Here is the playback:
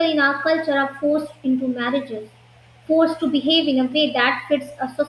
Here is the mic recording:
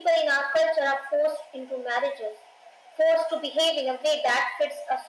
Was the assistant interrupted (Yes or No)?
No